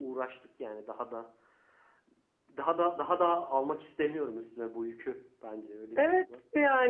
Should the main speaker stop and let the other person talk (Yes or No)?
Yes